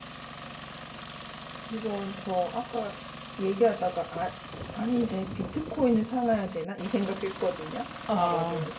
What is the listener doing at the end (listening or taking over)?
listening